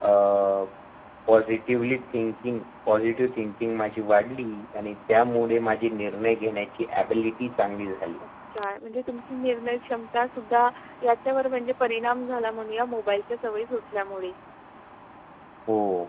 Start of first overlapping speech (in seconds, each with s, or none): none